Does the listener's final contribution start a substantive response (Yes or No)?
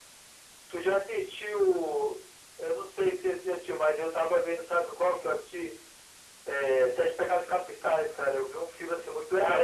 Yes